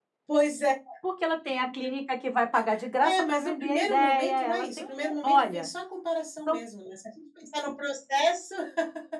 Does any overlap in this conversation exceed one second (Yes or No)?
Yes